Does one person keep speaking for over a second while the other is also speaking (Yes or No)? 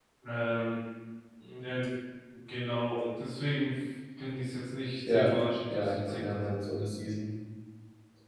Yes